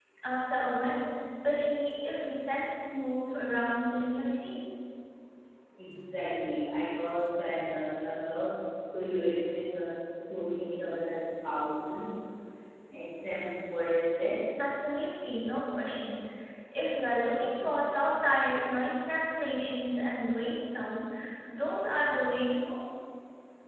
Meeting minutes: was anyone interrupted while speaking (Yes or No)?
No